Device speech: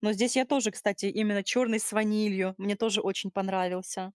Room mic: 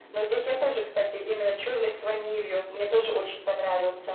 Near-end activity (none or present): none